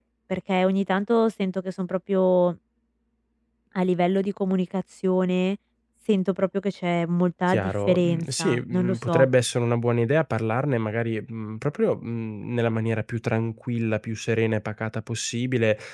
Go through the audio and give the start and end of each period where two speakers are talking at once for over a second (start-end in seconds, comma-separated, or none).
7.5-9.3